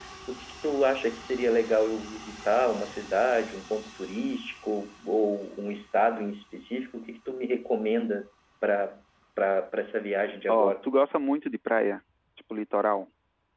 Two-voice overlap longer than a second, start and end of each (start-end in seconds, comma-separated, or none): none